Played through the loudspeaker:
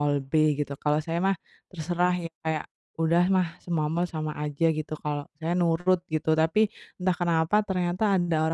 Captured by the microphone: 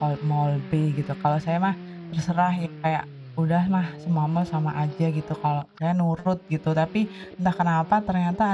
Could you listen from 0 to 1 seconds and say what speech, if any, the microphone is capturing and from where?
echo only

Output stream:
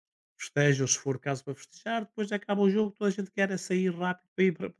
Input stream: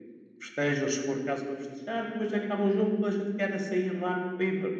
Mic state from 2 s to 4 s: echo only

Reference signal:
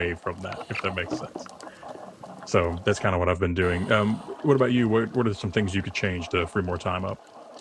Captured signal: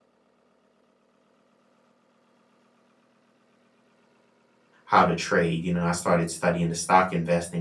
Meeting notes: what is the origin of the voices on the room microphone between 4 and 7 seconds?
user only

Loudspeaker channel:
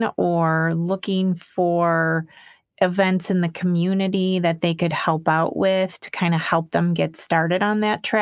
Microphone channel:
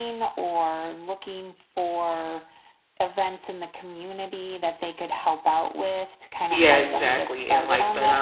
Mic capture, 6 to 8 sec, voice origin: both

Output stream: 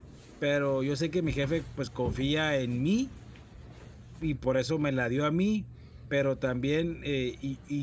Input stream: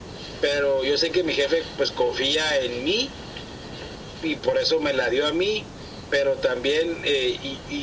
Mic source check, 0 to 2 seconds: echo only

